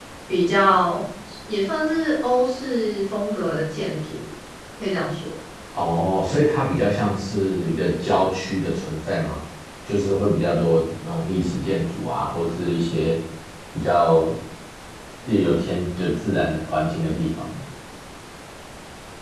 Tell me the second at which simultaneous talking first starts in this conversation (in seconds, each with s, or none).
none